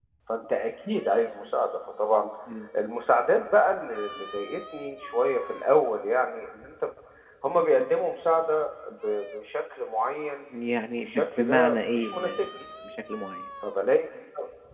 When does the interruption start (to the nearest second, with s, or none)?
11 s